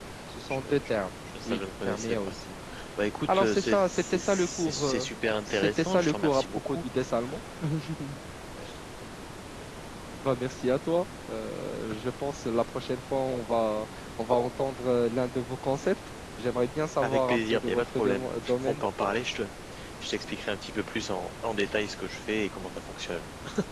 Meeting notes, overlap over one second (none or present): present